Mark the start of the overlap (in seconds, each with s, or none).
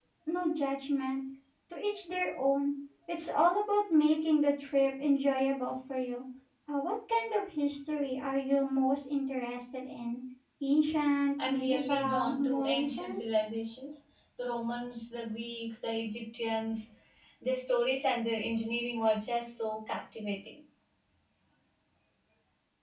11.4 s